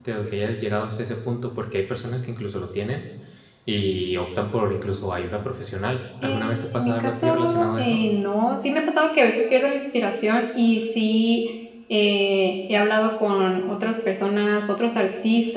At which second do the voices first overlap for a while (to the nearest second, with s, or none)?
6 s